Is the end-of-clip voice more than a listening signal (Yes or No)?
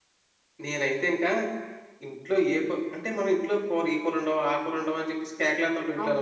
Yes